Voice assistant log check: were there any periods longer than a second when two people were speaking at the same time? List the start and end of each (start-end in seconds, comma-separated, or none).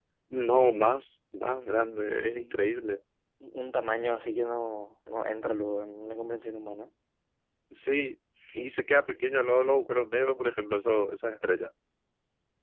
none